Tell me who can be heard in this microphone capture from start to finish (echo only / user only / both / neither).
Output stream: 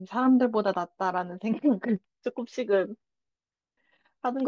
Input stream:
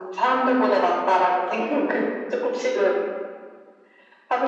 echo only